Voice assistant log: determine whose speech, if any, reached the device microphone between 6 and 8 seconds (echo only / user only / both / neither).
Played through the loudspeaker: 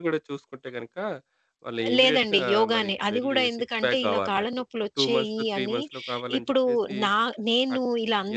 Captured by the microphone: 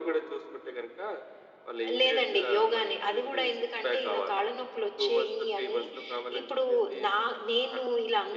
echo only